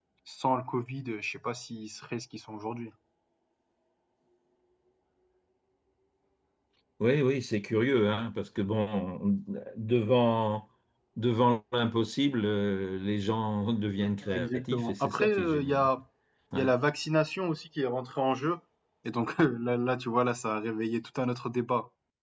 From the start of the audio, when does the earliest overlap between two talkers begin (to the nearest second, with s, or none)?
14 s